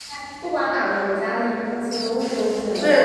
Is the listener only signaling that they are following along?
No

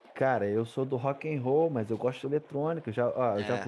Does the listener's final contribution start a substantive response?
No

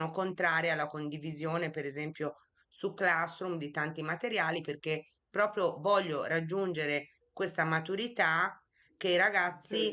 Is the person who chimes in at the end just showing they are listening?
Yes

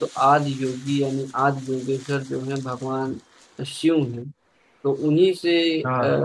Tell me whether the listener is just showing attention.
Yes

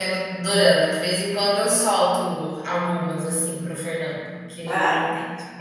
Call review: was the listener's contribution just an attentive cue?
No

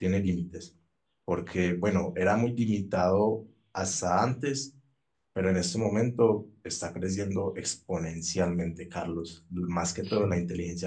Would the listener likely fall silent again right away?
Yes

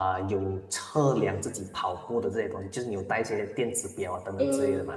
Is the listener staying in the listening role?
No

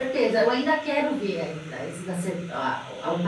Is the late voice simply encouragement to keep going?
Yes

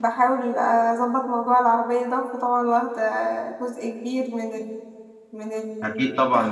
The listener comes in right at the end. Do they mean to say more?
Yes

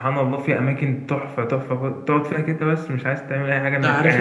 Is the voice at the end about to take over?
Yes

